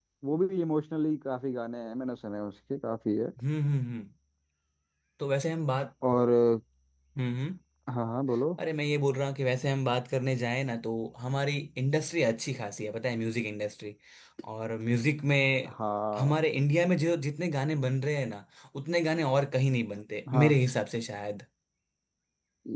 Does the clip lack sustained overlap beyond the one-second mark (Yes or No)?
Yes